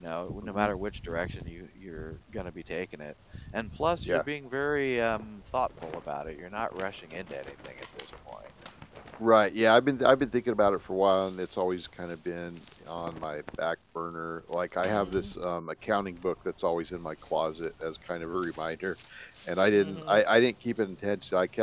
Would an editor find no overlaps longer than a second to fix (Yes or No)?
Yes